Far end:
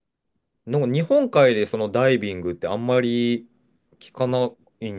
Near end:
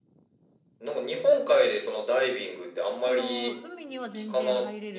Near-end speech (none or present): present